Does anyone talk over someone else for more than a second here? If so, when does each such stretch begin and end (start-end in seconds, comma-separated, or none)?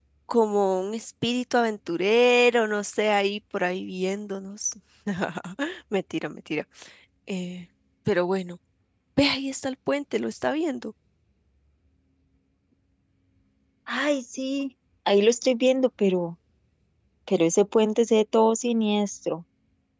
none